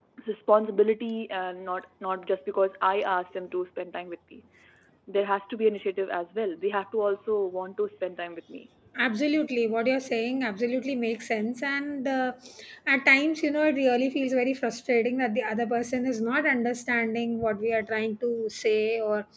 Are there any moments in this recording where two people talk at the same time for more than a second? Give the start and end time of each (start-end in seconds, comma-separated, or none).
none